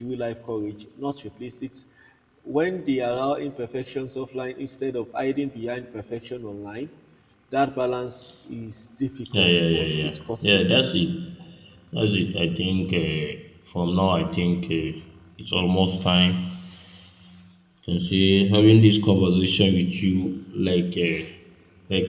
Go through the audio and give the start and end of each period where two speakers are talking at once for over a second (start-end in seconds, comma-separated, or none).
9.4-10.8